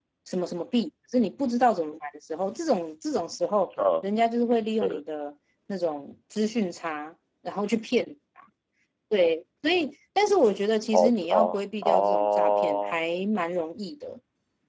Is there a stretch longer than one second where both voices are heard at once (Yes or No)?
Yes